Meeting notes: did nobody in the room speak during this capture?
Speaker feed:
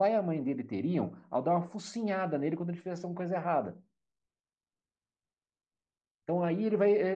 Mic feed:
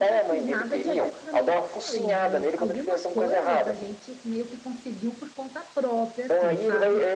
No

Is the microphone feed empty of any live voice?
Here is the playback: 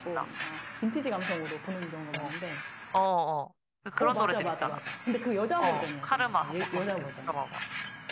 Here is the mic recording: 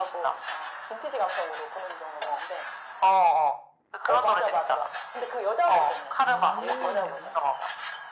No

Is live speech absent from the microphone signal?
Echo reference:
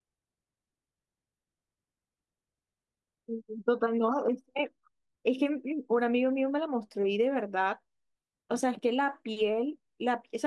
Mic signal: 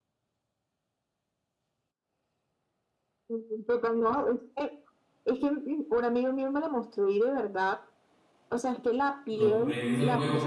No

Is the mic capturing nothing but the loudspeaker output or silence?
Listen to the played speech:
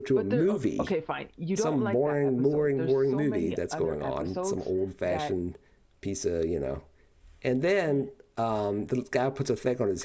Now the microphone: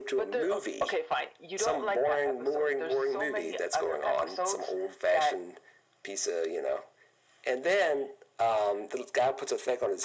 Yes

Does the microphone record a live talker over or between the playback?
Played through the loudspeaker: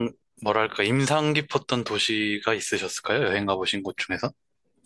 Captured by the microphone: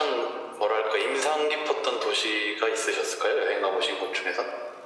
No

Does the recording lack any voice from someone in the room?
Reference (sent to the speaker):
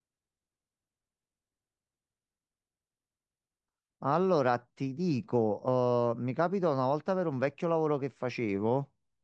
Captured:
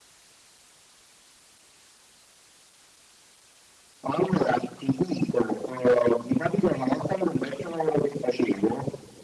Yes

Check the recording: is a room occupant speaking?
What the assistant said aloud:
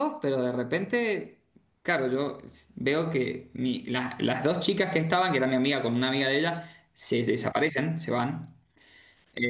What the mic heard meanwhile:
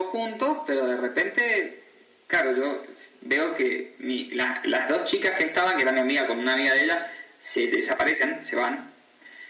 No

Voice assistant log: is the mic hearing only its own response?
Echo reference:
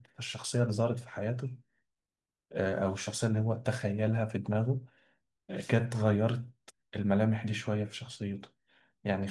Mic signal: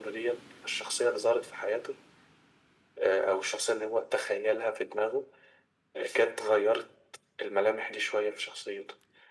Yes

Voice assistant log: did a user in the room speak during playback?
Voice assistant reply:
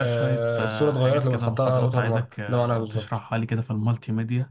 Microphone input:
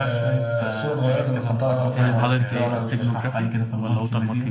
Yes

